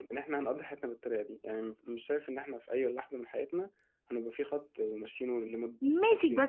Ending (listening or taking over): taking over